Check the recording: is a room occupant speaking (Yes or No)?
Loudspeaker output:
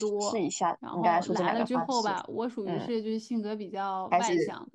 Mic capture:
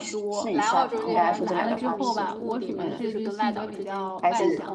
Yes